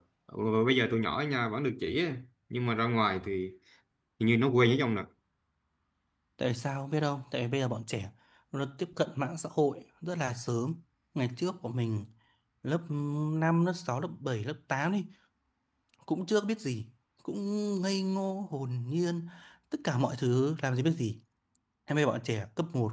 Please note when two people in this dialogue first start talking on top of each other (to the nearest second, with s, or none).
none